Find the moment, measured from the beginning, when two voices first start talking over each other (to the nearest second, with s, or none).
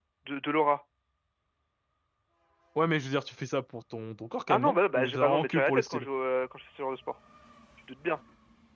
4 s